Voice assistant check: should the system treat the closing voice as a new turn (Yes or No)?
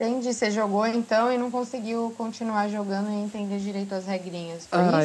Yes